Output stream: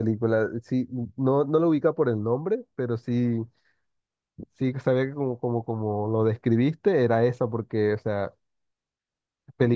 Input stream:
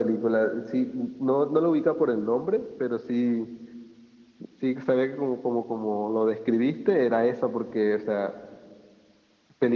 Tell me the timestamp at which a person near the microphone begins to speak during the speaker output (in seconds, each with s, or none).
none